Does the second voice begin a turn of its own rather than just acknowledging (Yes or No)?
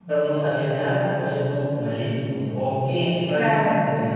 No